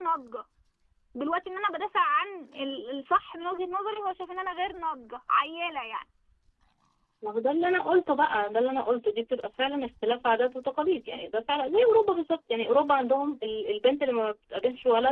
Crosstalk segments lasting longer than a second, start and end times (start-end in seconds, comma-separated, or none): none